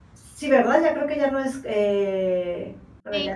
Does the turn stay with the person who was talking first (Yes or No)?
No